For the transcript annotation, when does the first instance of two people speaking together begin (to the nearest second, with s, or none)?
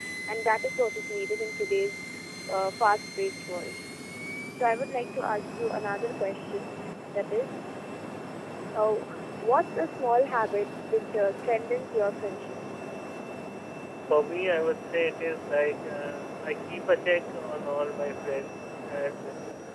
none